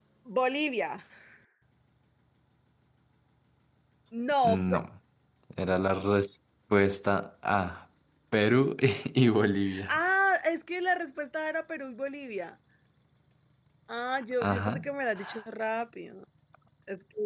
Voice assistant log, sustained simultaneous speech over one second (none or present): none